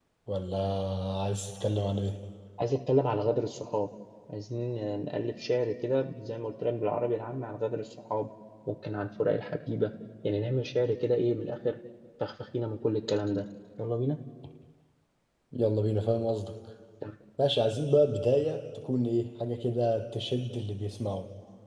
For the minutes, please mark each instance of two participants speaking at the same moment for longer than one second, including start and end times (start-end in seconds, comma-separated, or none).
none